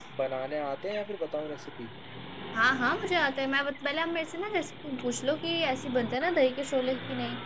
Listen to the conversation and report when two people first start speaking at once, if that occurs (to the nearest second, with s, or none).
none